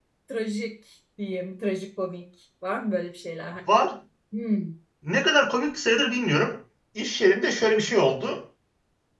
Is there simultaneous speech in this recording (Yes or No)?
No